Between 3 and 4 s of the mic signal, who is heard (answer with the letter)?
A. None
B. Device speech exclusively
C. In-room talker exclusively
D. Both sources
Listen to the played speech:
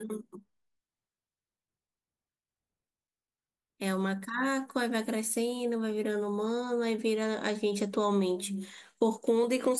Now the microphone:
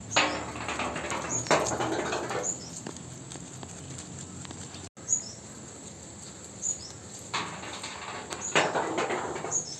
A